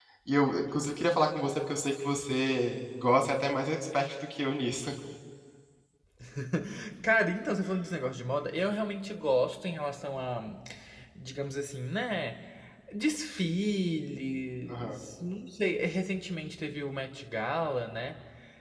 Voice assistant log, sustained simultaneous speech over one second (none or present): none